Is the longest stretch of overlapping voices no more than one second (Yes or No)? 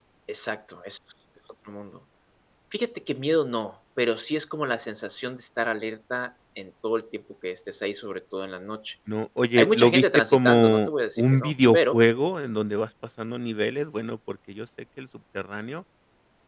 No